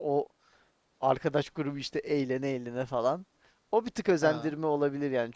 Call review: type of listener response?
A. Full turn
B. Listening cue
B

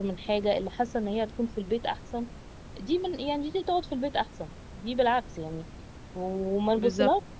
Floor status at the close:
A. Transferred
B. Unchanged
B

